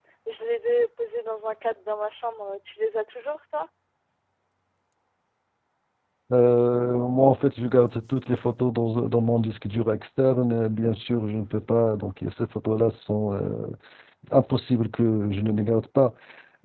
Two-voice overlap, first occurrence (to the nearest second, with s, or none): none